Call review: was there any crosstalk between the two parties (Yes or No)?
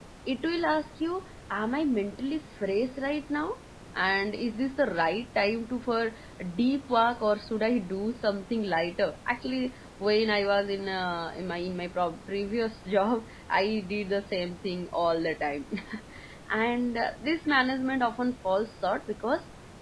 No